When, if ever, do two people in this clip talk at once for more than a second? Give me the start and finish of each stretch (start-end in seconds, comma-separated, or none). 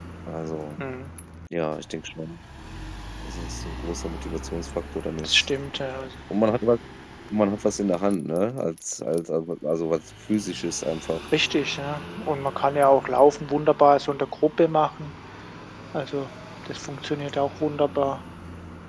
none